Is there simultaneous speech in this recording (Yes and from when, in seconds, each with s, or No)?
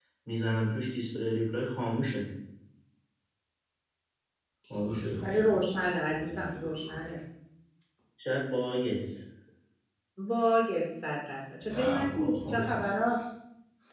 Yes, from 4.7 s